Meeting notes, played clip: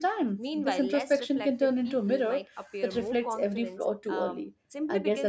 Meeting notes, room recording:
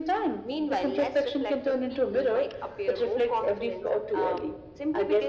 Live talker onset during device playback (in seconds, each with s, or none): none